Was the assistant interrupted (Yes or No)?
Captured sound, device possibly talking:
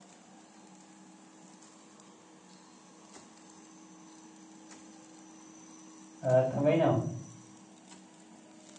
Yes